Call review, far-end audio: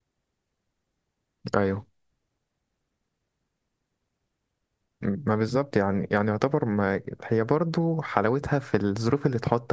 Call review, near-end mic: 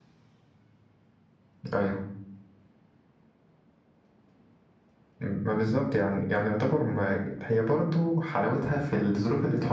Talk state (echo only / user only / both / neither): echo only